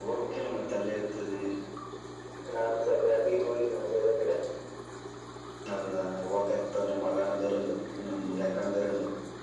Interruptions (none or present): none